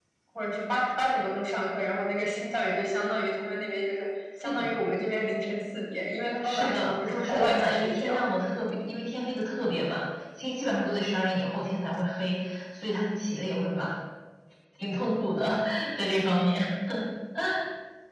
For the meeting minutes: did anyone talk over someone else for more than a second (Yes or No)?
Yes